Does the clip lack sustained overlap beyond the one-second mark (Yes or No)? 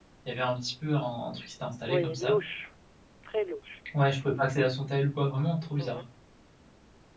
Yes